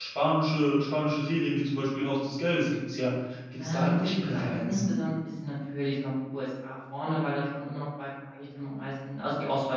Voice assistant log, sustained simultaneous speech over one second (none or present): present